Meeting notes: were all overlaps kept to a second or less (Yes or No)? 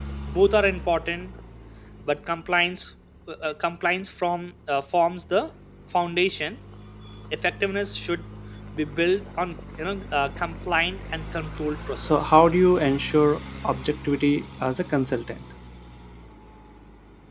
Yes